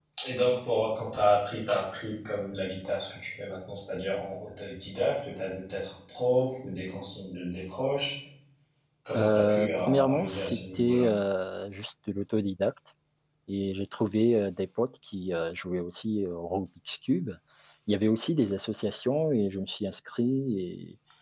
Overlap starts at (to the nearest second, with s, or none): 9 s